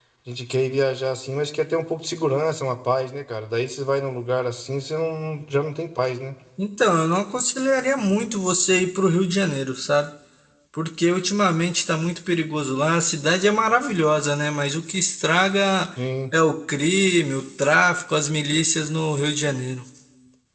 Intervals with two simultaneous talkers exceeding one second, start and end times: none

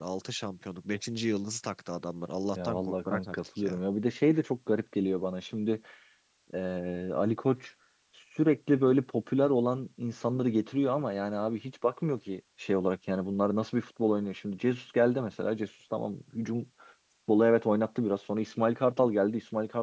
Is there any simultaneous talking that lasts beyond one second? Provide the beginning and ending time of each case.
2.6-3.8

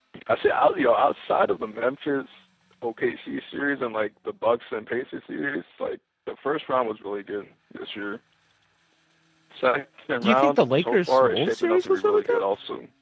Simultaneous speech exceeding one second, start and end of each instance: 10.2-12.4

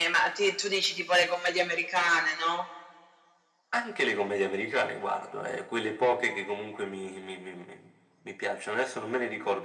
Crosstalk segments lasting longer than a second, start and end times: none

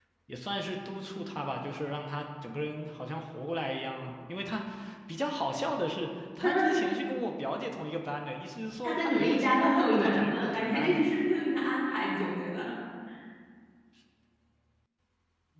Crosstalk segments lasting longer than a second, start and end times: 8.8-11.1

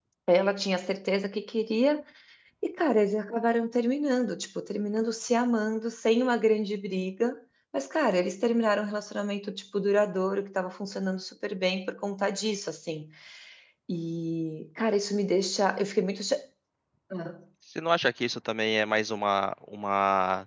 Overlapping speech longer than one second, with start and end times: none

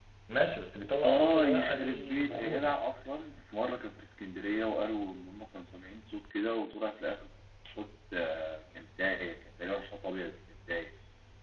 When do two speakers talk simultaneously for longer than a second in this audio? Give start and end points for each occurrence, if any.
1.1-2.7

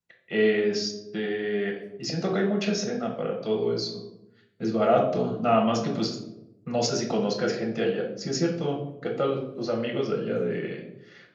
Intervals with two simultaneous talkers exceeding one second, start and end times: none

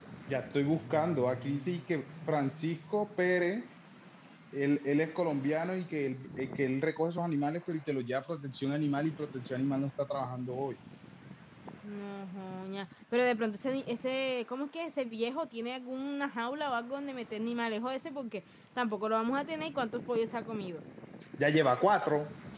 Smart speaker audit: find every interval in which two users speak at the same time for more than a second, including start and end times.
none

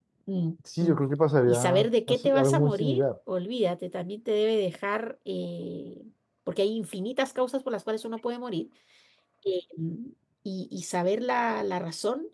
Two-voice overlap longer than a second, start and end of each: 1.5-3.0

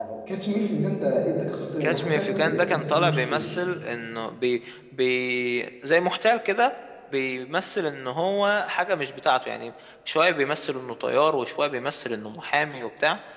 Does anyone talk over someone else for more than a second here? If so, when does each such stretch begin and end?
1.8-3.6

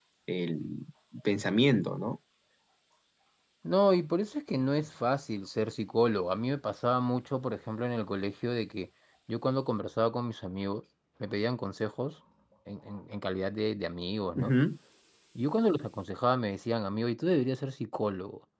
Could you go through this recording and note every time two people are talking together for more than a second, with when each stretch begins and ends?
none

